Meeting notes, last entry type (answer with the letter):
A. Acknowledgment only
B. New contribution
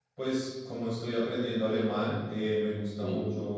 A